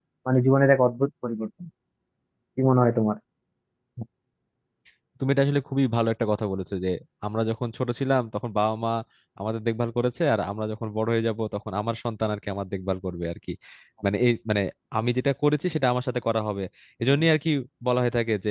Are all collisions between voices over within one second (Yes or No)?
Yes